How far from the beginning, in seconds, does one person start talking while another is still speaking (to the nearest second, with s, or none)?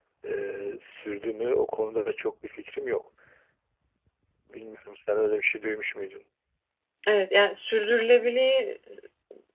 none